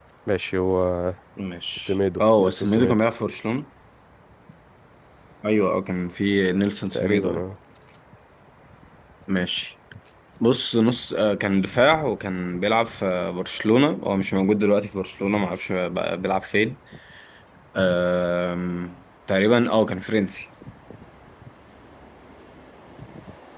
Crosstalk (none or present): present